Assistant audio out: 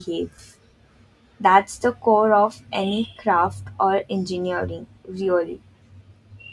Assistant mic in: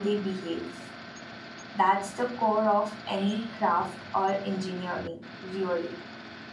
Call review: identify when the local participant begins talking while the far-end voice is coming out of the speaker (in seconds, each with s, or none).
none